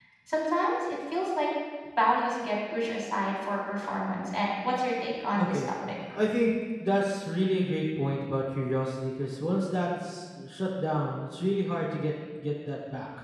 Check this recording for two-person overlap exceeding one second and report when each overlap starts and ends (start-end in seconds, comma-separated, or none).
none